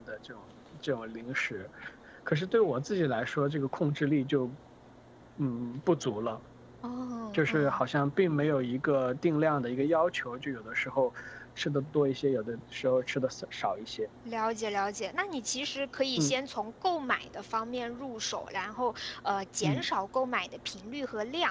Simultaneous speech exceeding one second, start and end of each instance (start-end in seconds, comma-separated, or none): none